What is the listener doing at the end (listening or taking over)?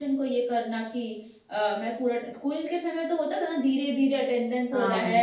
listening